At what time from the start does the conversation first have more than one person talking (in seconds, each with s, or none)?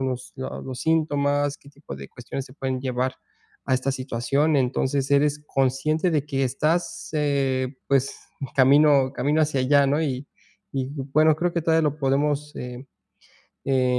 none